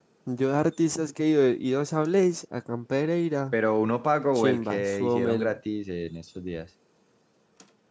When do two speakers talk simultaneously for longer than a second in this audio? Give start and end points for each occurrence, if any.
4.3-5.6

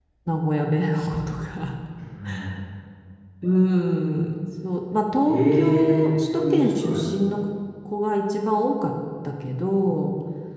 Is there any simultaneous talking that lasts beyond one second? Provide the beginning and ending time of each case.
5.2-7.0

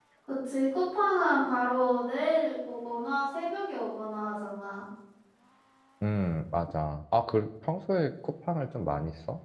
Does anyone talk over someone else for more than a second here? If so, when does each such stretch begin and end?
none

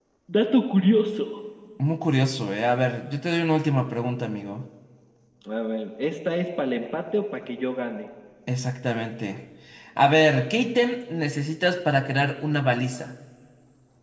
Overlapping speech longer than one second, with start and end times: none

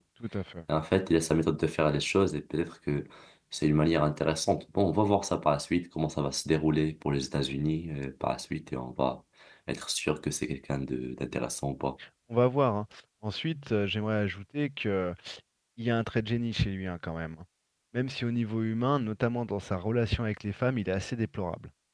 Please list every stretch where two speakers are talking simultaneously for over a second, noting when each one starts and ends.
none

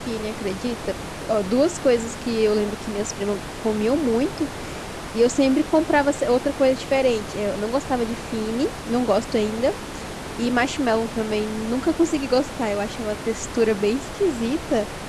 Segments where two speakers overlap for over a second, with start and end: none

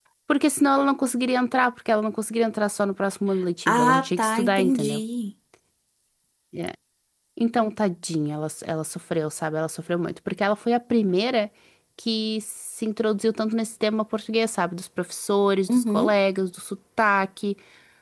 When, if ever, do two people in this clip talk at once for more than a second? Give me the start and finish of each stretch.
3.7-5.0

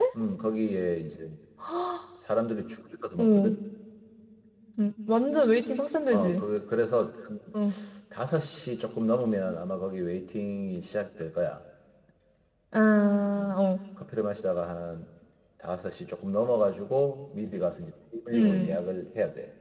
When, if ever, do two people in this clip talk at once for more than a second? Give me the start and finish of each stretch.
none

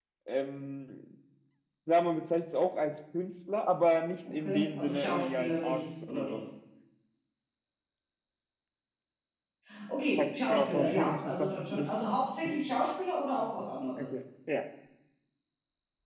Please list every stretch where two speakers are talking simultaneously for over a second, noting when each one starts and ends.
4.3-6.4, 10.2-11.9

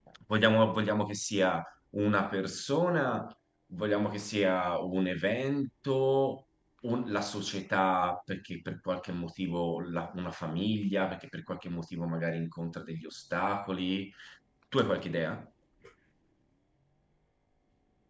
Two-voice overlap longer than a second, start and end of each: none

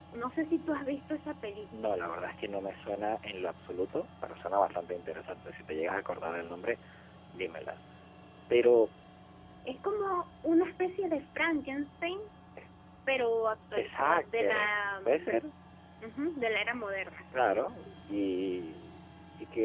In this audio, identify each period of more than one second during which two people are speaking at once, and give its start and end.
13.8-15.3

